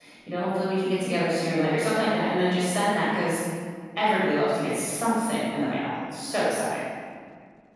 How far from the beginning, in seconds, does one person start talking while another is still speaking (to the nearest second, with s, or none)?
none